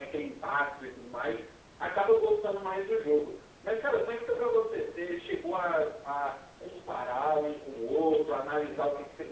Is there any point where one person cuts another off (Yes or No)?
No